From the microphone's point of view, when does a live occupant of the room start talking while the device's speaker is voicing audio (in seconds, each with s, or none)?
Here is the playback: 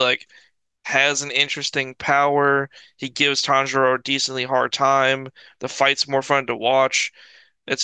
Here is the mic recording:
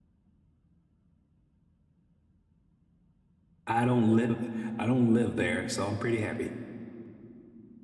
3.6 s